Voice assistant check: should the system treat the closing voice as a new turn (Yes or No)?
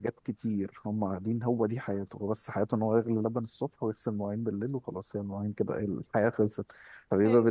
No